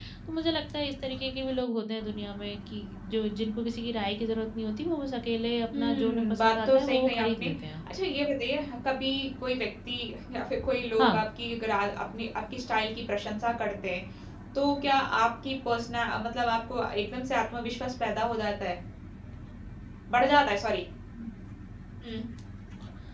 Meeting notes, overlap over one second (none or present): present